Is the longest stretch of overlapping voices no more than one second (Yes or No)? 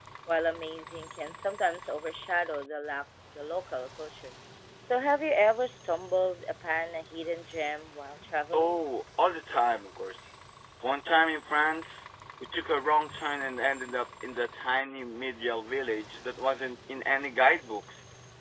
Yes